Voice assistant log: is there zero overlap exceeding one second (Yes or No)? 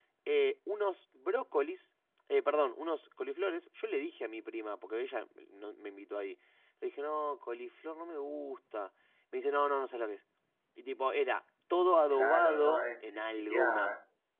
No